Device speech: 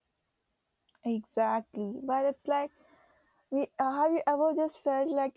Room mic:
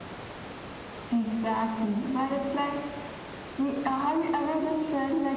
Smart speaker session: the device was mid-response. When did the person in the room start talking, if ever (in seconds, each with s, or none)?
none